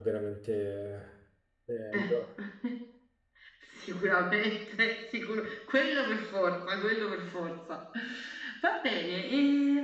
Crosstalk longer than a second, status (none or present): none